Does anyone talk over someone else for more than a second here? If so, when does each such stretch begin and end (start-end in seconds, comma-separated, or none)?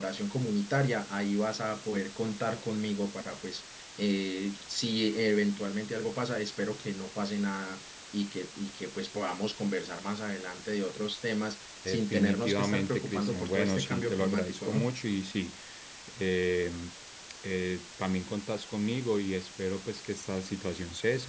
11.9-14.9